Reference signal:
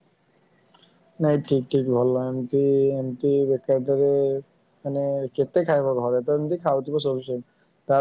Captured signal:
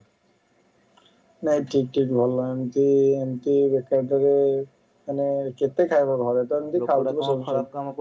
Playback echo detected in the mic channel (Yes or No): Yes